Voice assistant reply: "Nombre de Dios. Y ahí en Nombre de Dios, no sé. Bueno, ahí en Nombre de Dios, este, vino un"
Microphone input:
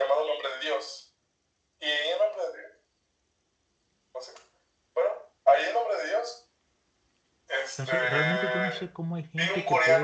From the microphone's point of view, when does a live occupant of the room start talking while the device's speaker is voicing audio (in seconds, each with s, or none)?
7.7 s